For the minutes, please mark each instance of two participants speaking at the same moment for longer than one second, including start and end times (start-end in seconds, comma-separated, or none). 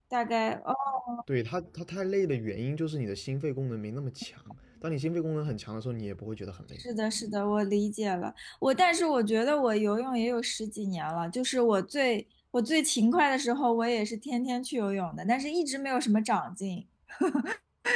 none